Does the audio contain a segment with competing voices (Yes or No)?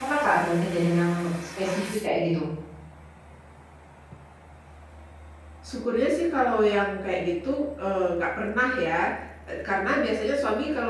No